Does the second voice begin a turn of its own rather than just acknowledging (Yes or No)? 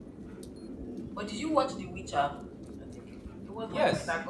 Yes